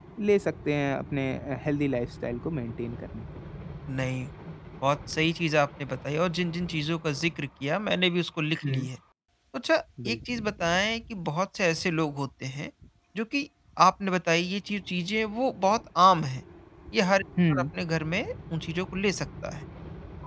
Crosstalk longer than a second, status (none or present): none